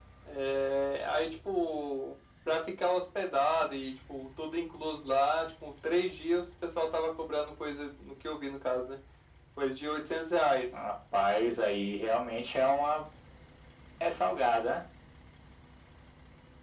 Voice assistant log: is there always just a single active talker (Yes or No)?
Yes